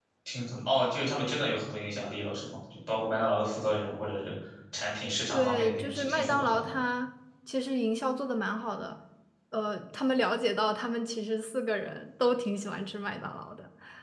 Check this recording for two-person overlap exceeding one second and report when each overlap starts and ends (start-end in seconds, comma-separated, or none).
5.3-6.8